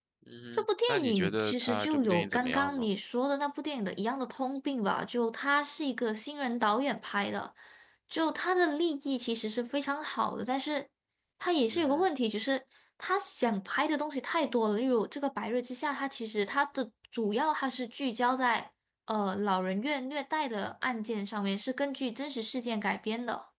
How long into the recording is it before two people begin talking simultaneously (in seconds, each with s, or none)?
0.5 s